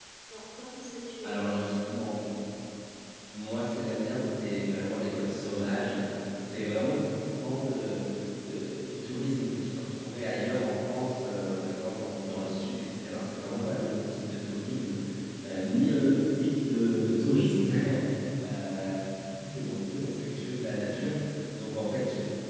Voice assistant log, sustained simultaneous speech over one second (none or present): none